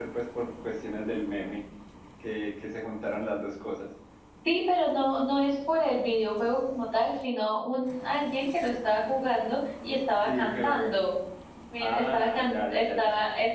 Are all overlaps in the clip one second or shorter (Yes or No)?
No